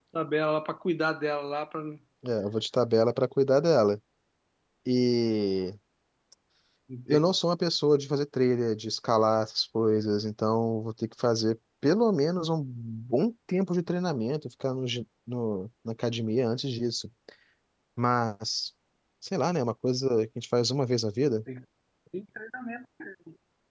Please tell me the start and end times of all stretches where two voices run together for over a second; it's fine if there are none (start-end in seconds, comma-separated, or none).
none